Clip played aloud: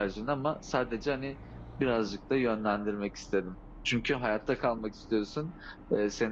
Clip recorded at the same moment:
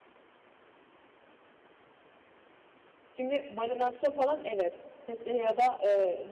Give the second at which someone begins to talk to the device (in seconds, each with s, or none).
3.1 s